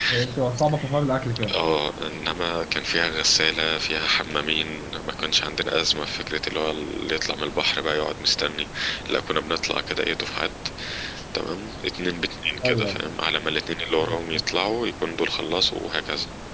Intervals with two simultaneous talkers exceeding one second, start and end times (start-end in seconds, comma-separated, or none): none